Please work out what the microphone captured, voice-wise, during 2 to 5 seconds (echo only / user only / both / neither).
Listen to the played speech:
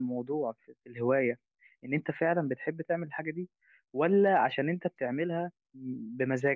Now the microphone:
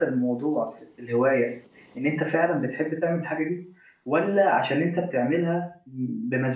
echo only